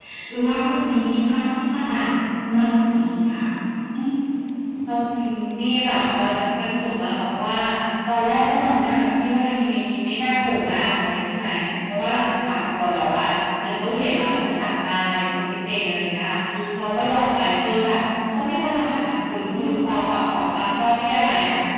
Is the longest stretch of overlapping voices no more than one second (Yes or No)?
Yes